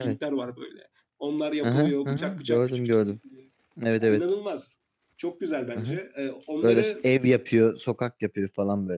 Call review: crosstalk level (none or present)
present